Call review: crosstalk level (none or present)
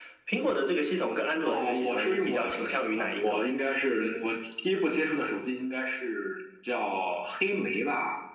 present